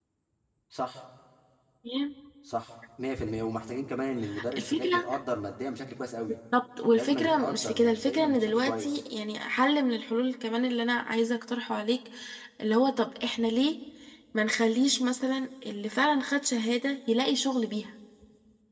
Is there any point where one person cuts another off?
Yes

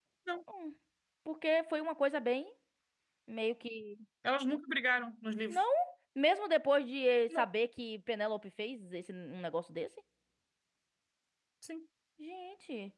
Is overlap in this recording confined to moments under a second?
Yes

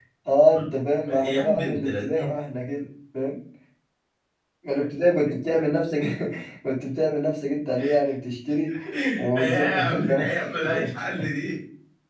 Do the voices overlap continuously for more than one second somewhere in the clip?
Yes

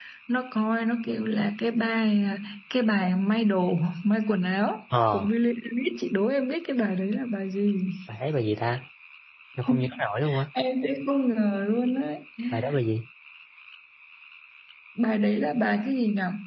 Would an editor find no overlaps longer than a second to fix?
Yes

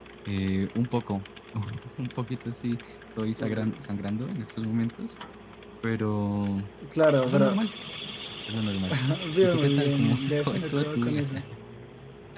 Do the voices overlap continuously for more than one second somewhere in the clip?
Yes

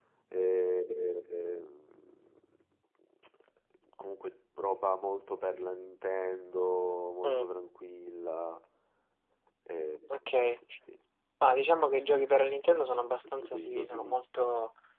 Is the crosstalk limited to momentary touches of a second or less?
No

